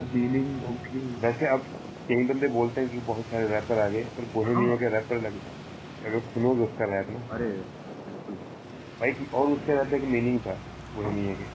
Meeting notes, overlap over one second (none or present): none